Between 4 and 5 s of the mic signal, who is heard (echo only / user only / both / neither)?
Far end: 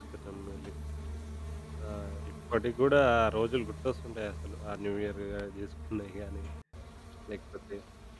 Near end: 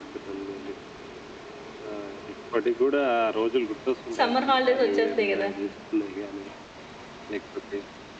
both